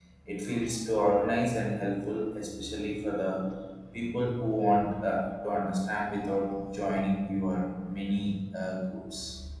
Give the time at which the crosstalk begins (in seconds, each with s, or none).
none